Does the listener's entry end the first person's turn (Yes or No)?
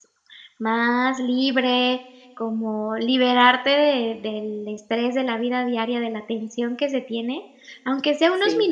No